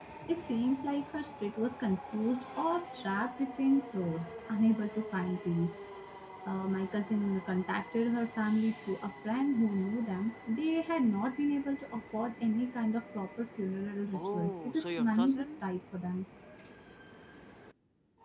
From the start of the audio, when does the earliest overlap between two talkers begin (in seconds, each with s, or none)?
14.1 s